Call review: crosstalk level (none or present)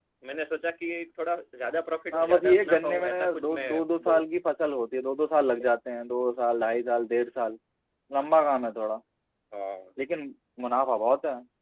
present